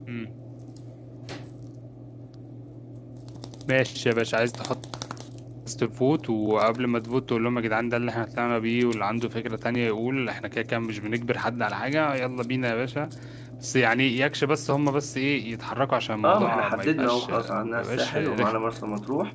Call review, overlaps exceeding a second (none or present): present